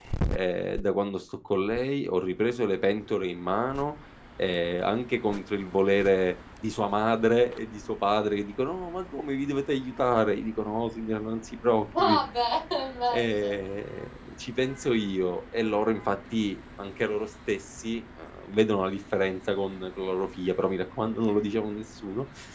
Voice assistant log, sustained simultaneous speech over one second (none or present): none